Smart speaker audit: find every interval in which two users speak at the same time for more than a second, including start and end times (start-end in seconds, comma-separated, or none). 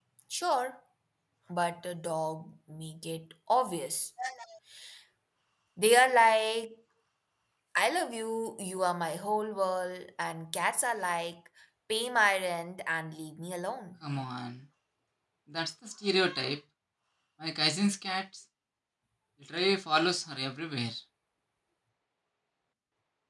none